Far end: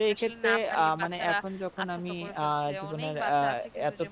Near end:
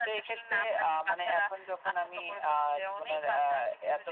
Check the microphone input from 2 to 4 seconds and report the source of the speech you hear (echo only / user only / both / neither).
echo only